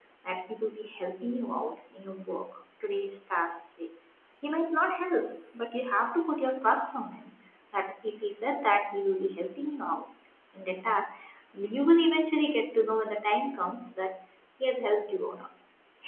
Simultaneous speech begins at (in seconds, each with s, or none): none